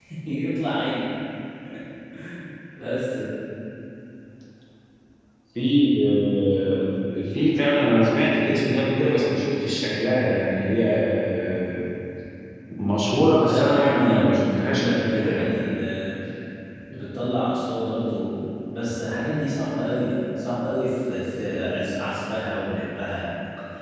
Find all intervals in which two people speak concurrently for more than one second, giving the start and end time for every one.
13.4-15.4

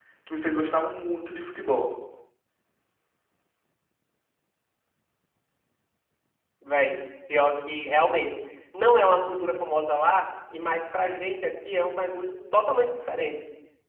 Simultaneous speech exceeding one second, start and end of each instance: none

